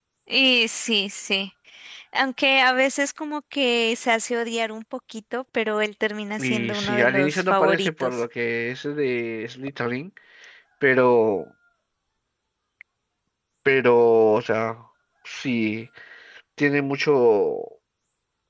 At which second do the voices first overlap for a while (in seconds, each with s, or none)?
6.4 s